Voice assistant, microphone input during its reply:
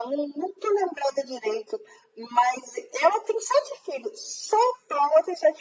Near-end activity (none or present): none